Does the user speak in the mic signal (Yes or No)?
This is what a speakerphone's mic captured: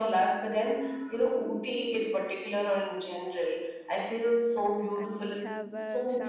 Yes